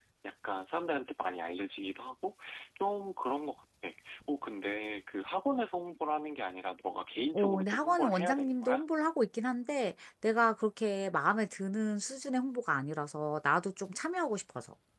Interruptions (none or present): present